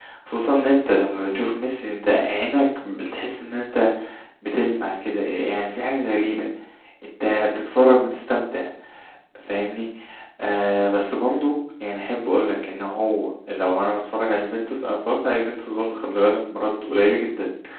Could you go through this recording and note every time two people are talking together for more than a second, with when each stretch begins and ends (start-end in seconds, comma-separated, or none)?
none